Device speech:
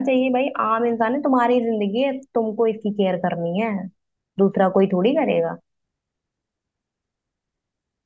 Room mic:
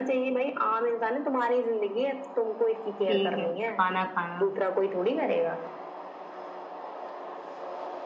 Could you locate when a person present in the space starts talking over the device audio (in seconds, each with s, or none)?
3.1 s